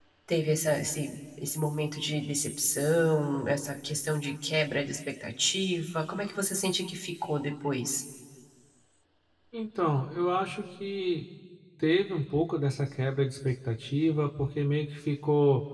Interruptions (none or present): none